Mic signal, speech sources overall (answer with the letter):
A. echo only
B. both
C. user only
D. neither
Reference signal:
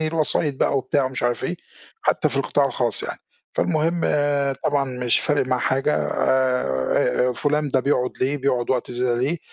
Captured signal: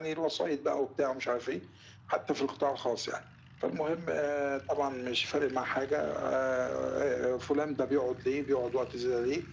A